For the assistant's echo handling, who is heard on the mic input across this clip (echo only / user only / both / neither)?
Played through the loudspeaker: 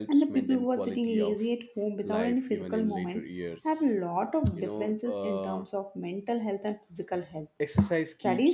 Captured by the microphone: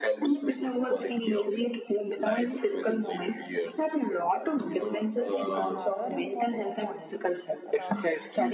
both